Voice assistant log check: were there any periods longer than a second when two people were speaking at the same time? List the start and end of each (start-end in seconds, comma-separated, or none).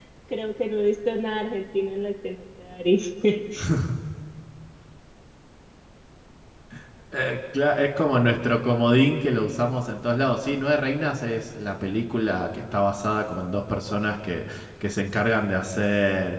none